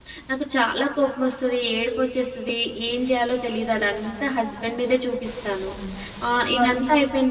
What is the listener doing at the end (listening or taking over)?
listening